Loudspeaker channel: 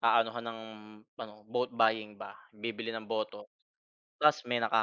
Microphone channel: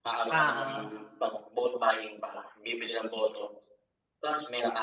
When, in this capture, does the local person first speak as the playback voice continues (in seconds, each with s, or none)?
0.3 s